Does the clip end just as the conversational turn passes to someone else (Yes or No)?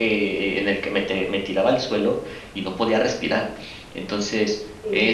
No